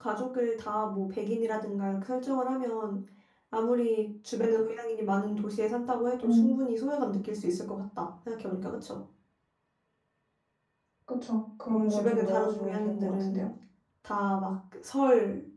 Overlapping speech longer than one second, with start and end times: 11.7-13.5

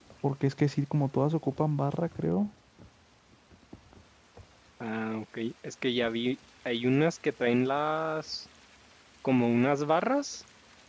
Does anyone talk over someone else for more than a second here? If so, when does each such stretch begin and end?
none

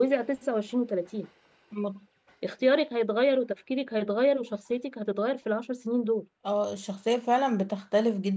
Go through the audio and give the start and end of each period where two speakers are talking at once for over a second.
none

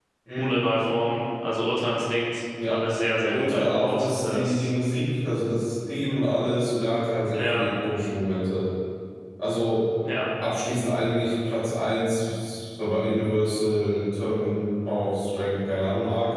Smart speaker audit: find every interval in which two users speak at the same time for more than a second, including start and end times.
3.3-4.7

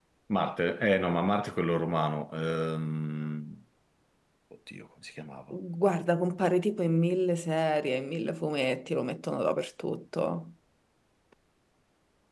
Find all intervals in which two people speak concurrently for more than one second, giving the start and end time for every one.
none

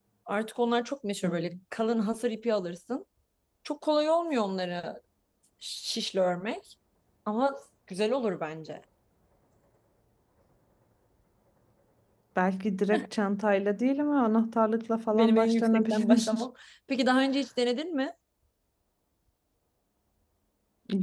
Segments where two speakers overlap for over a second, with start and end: 15.1-16.4

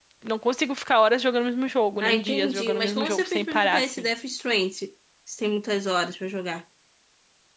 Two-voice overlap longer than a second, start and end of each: 2.0-4.0

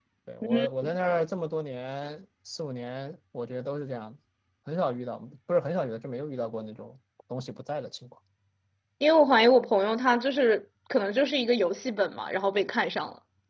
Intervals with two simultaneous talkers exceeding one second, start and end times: none

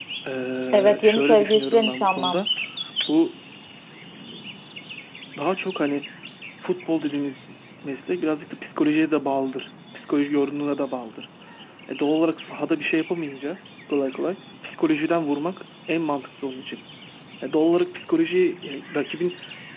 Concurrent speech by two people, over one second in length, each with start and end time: 0.7-2.5

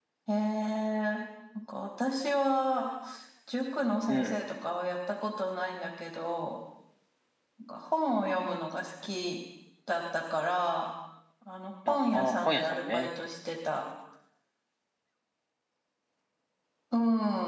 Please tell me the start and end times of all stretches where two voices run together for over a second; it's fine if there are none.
11.9-13.1

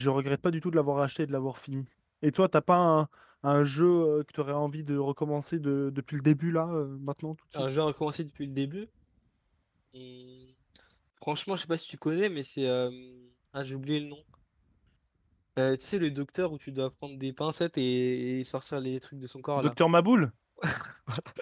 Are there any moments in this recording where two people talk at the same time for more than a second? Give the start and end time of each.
none

